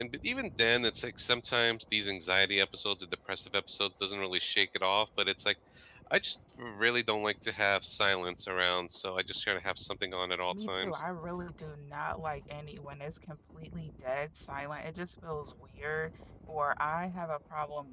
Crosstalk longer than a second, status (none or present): none